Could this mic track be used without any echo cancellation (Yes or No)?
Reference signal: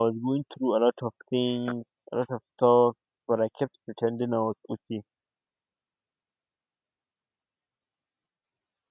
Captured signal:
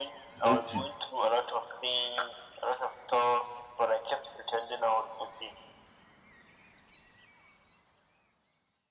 No